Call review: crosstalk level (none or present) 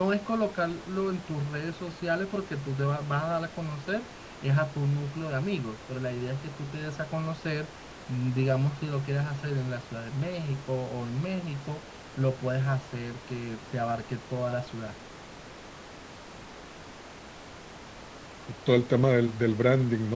none